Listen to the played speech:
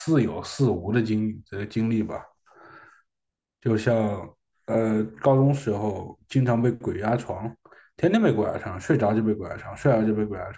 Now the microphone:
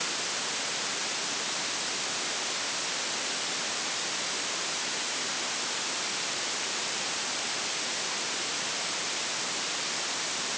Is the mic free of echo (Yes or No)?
Yes